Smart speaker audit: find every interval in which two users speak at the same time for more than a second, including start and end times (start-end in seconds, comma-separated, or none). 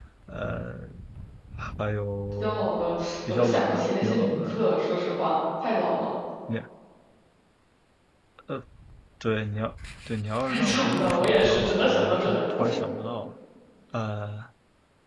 3.3-4.6, 10.4-12.6